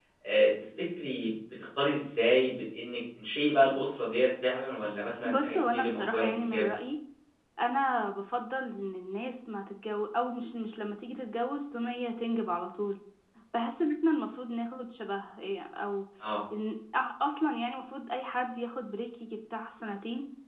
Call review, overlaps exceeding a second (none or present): present